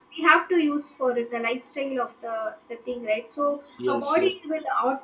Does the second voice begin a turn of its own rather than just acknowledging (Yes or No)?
No